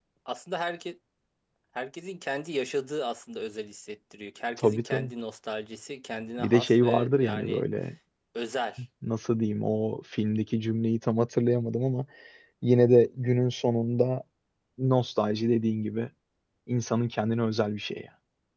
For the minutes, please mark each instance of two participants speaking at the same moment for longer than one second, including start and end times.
6.4-7.6

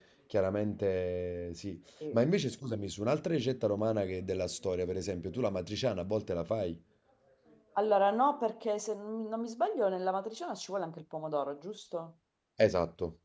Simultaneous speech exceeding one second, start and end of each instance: none

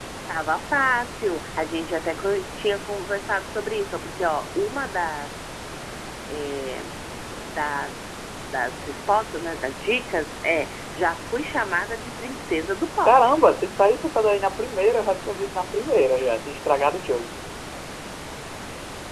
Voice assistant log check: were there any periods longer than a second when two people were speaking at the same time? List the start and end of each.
none

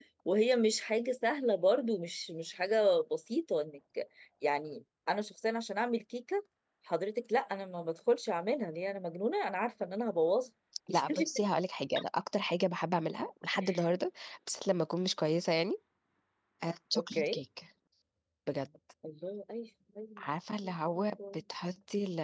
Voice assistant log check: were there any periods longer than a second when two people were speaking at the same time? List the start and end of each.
none

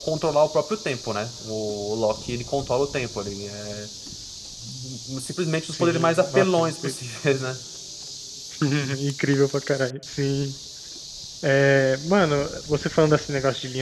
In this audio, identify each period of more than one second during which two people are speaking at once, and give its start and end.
5.7-6.9

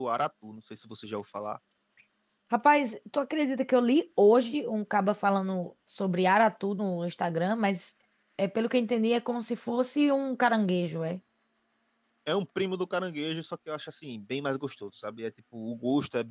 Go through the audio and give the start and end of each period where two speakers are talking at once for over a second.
none

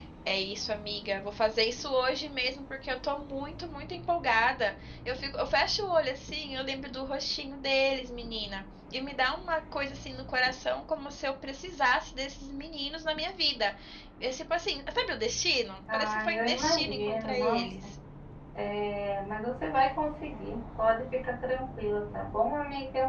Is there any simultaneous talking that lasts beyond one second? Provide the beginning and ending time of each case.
15.9-17.7

